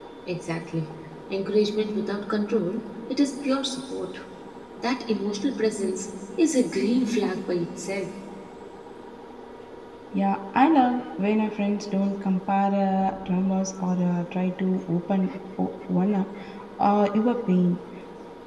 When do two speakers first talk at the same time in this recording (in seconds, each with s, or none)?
none